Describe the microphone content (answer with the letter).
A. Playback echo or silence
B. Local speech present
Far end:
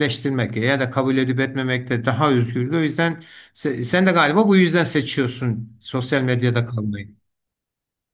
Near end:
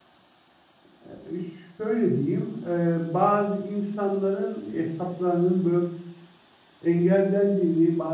B